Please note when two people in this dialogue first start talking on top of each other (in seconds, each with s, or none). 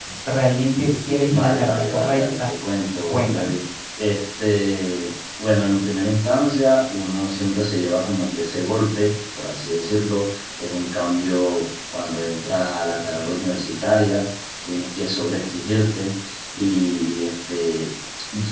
1.3 s